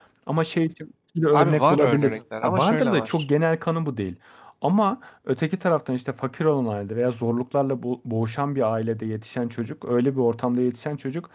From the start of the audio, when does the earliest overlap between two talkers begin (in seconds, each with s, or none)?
1.3 s